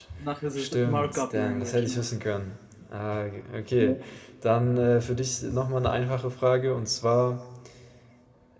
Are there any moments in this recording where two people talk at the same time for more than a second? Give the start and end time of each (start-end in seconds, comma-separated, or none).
0.6-2.1